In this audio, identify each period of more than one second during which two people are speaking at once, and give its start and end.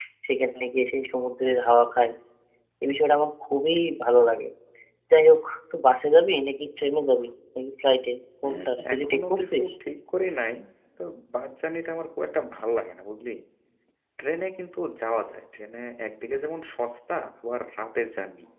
8.4-9.7

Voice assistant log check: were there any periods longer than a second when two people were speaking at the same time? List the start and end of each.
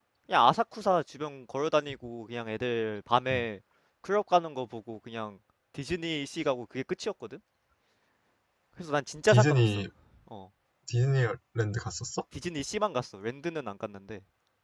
none

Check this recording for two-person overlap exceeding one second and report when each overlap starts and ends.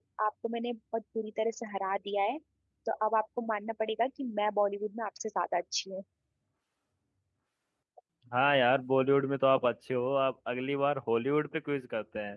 none

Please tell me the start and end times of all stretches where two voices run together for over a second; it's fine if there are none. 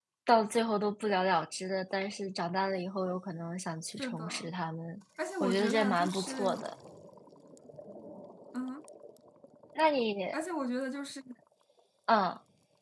5.4-6.7

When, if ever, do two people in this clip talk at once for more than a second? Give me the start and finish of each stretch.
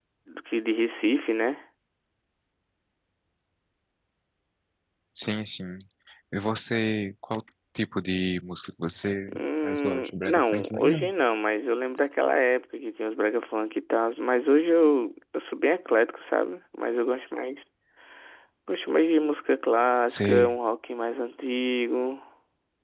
9.3-11.1

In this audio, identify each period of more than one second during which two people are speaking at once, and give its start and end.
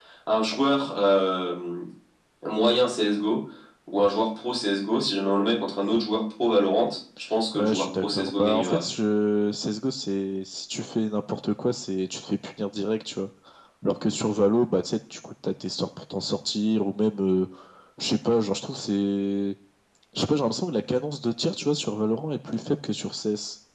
7.5-8.8

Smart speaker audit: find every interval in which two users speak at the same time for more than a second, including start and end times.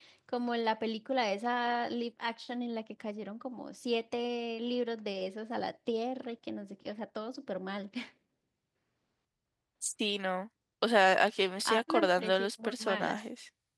11.6-13.2

